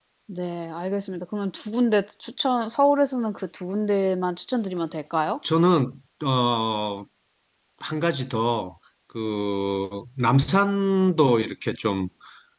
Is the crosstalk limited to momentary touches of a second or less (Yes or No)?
Yes